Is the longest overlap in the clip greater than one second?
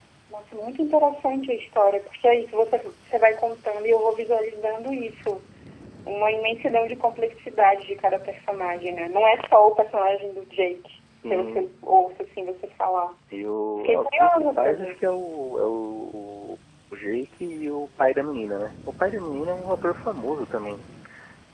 Yes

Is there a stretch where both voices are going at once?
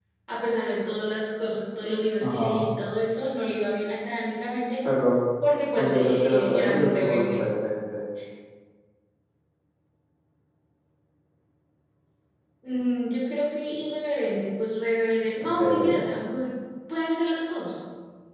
Yes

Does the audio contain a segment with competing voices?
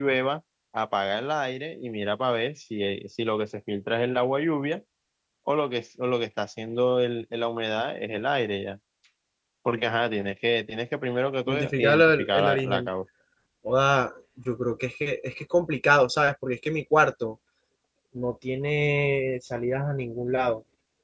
Yes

